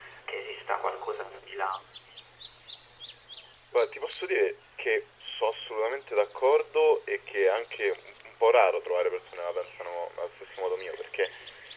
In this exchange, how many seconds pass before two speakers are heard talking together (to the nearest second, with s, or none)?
none